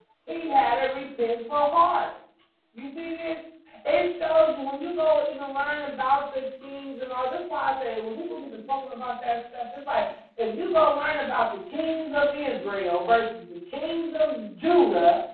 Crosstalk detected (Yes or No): No